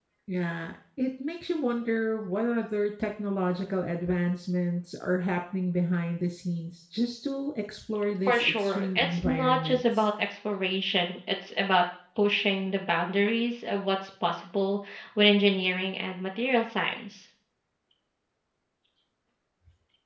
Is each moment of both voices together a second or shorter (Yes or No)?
No